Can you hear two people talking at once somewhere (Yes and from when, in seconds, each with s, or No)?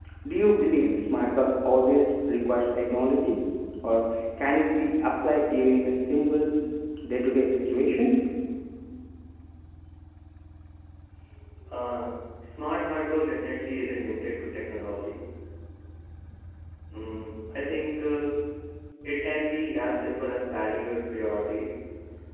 No